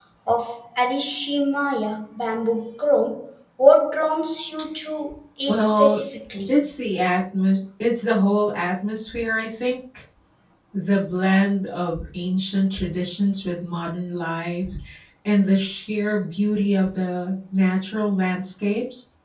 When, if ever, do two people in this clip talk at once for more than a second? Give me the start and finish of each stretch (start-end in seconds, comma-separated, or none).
none